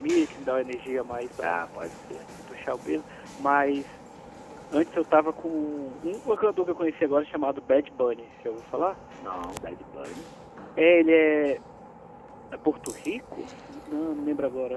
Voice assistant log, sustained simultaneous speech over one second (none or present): none